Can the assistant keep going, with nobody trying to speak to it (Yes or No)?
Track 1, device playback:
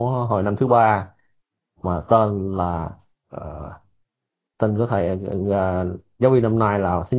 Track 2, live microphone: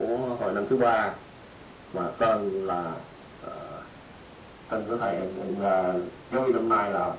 Yes